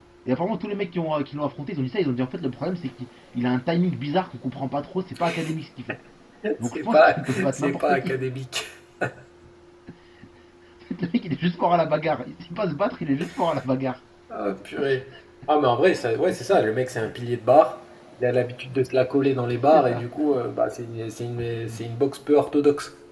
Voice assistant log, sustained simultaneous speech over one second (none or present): present